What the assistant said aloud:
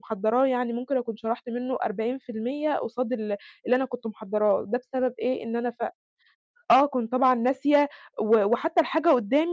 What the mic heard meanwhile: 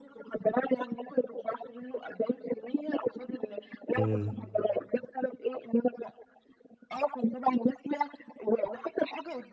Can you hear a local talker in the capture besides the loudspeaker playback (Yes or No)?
Yes